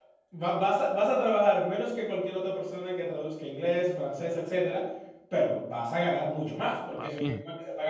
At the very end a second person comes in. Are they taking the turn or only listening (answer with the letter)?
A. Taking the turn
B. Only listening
B